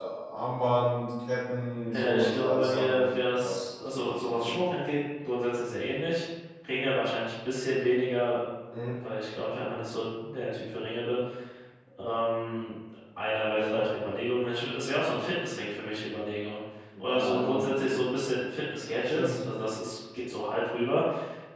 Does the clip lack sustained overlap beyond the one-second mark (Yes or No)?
No